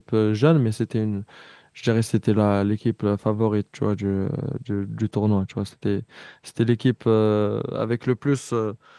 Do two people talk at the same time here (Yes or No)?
No